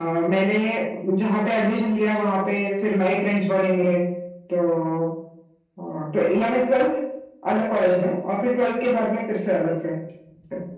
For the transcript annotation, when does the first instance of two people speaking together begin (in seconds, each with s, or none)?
none